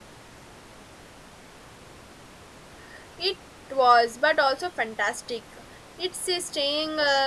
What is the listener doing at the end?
listening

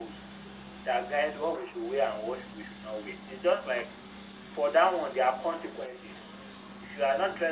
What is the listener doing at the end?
listening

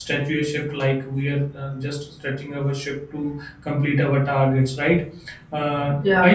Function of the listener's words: listening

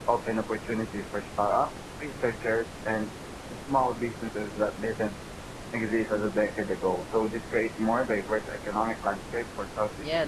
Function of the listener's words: taking over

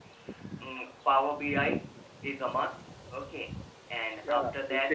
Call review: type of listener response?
taking over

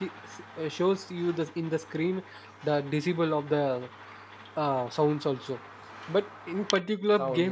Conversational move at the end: listening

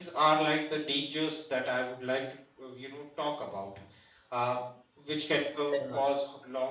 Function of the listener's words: listening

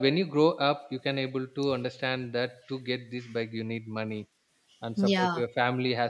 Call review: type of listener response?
listening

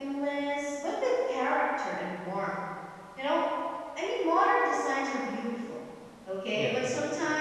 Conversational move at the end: listening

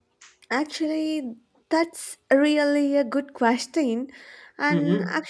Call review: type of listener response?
listening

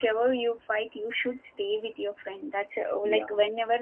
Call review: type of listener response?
listening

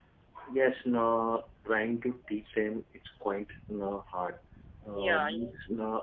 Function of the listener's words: listening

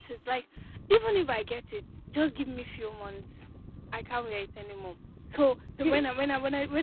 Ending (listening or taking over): listening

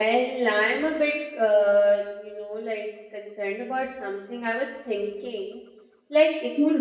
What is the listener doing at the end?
listening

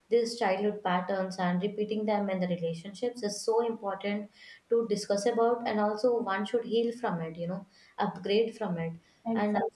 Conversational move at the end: taking over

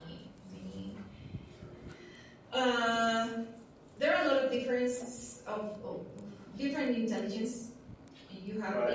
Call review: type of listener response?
listening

